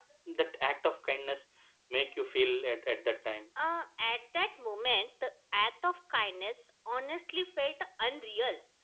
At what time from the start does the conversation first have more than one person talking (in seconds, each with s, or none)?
none